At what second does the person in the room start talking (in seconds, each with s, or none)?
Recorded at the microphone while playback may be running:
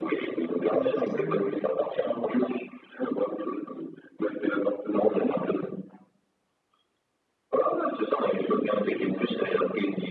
0.7 s